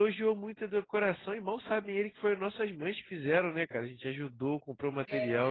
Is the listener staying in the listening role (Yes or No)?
Yes